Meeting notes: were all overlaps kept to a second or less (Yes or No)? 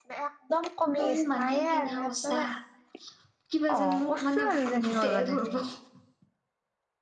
No